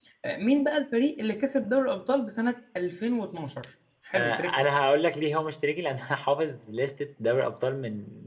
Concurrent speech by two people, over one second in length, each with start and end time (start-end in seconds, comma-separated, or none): none